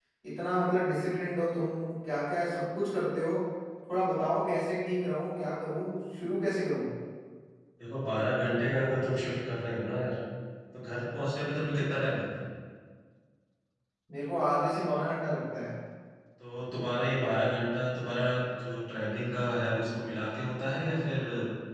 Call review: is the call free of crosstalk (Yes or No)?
Yes